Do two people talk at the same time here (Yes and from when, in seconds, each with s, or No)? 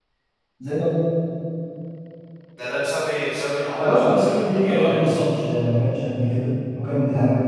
Yes, from 3.8 s